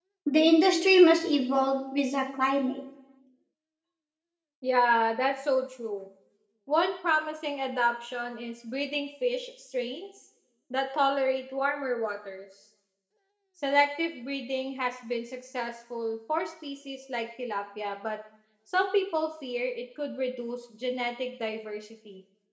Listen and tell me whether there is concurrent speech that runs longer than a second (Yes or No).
No